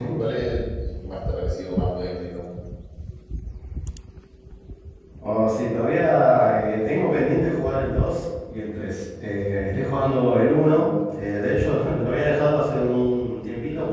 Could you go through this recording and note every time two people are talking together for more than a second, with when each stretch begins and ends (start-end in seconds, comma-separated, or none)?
none